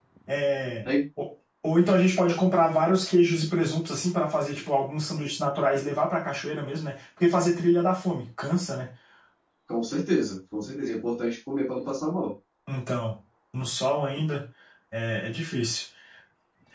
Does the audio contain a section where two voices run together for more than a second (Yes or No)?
No